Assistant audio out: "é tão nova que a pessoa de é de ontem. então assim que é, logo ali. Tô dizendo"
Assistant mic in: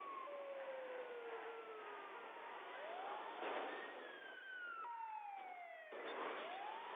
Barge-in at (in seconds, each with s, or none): none